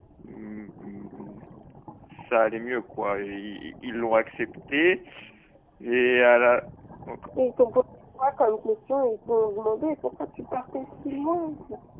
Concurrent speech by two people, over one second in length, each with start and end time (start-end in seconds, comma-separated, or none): none